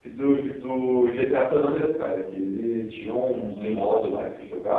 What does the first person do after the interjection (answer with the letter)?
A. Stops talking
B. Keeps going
B